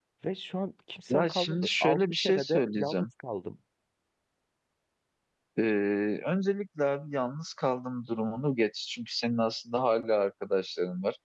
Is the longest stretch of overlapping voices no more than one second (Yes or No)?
No